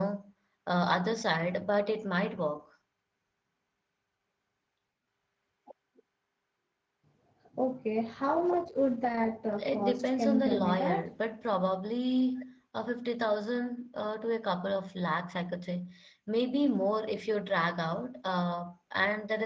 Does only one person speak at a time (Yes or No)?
No